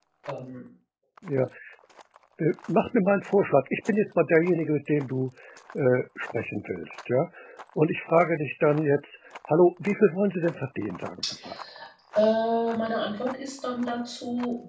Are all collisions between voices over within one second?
Yes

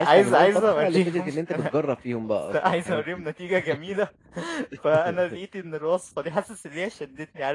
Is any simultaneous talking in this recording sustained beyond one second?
Yes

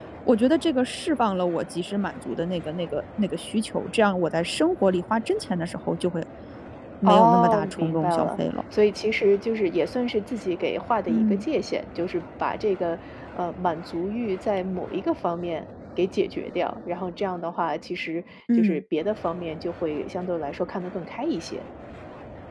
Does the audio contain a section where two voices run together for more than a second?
Yes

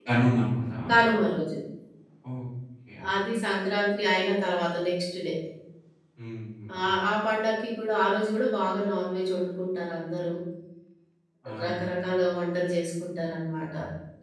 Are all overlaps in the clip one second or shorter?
Yes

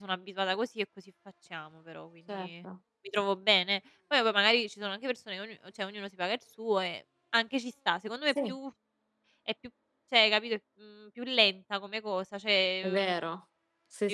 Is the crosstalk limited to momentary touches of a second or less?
Yes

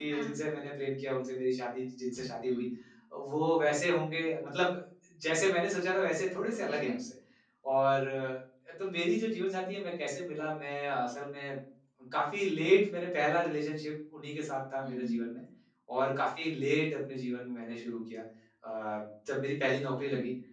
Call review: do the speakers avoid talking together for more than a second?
Yes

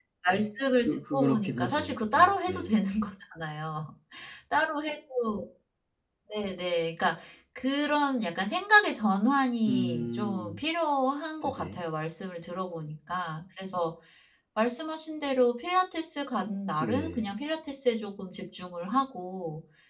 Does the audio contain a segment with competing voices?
Yes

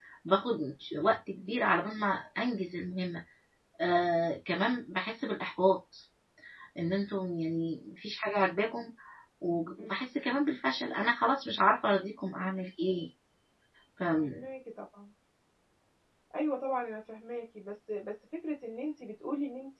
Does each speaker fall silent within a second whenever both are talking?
Yes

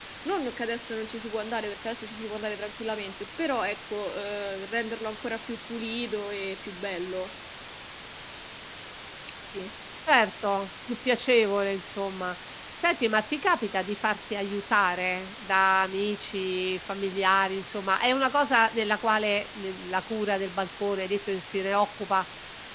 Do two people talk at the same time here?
No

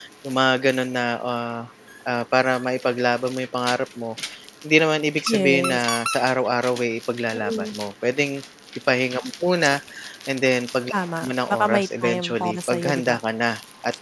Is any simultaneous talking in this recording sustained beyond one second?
Yes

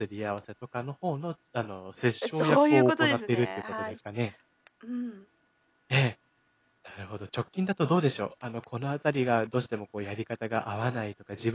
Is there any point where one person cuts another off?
Yes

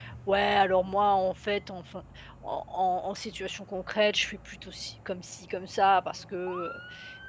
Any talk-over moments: No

